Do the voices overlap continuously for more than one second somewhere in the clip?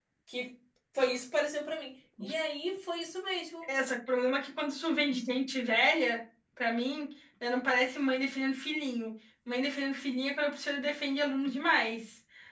No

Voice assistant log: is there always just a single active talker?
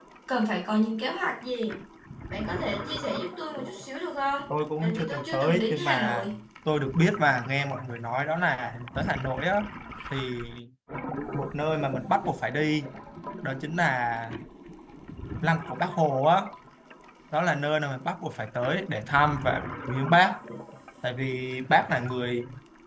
No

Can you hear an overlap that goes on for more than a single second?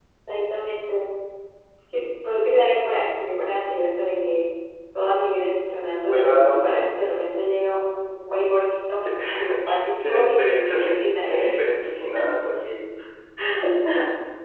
Yes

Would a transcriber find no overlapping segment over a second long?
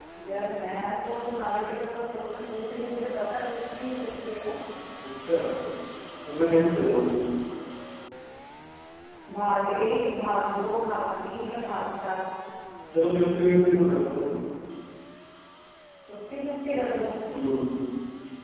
Yes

